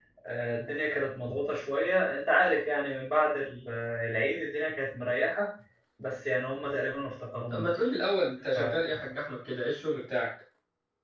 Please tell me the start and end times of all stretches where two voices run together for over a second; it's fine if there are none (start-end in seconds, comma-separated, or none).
none